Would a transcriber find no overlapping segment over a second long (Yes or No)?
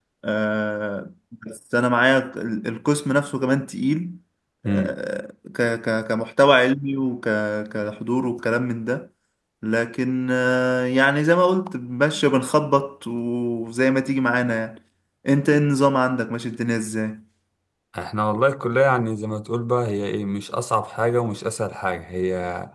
Yes